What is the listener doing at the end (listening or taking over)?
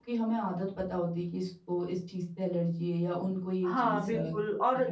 taking over